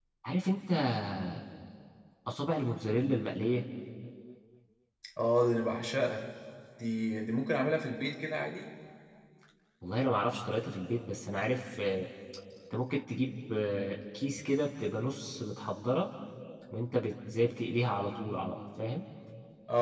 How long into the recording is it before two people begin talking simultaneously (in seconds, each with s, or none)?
none